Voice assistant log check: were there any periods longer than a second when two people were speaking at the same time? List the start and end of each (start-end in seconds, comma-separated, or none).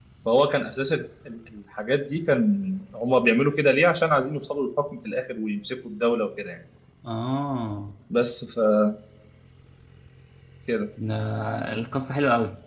none